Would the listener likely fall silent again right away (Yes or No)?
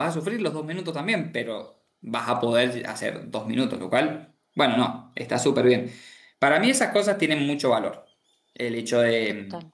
Yes